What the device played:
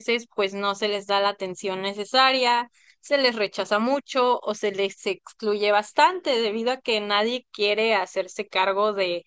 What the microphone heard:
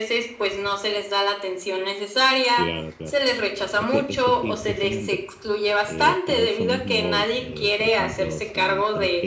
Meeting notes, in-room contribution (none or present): present